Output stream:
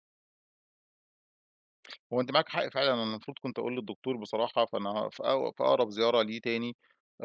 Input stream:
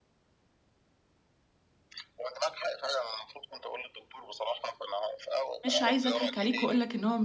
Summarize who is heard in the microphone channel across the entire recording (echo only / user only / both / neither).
both